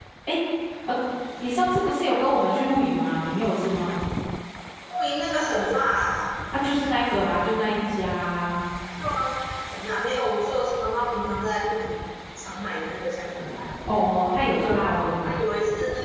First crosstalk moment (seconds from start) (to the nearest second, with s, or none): none